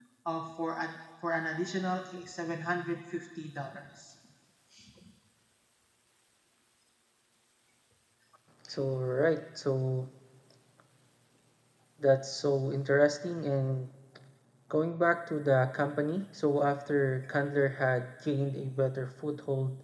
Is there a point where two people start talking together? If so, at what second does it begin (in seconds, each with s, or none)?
none